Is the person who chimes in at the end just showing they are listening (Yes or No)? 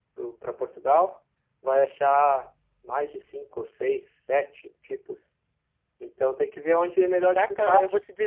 No